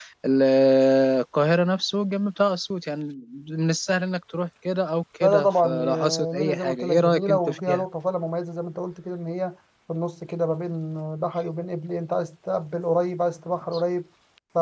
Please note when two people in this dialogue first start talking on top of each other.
5.2 s

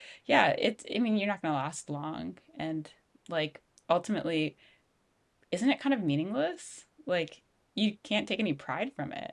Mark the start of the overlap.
none

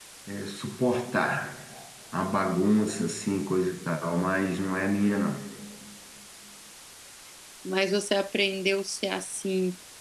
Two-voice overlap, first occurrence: none

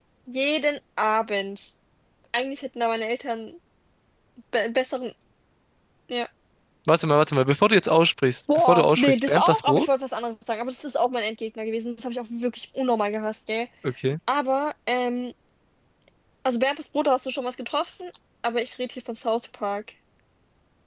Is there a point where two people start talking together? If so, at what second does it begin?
8.5 s

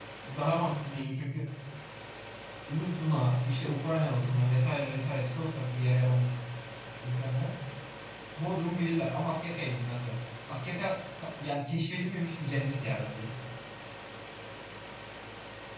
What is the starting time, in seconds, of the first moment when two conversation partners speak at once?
none

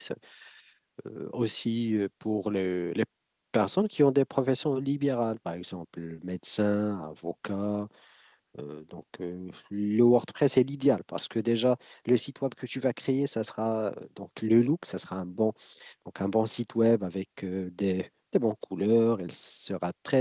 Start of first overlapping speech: none

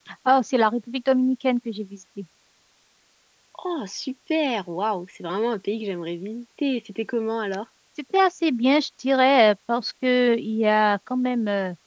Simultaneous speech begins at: none

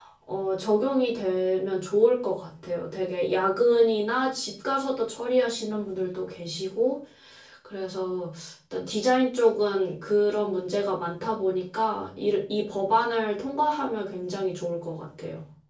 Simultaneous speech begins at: none

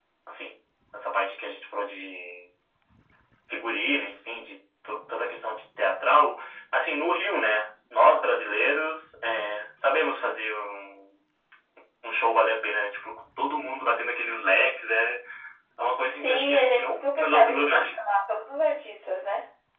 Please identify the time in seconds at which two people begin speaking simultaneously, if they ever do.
16.1 s

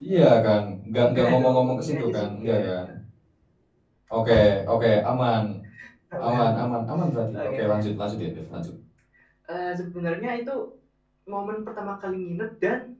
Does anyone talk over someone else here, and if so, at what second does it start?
1.0 s

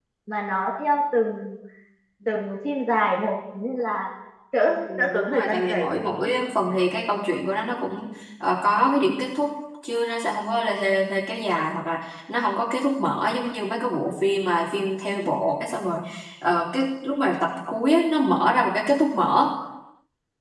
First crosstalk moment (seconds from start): 4.7 s

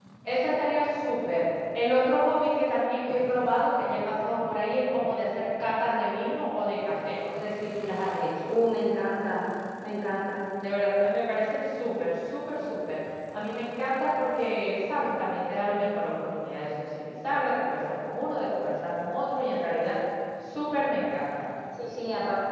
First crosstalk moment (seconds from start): none

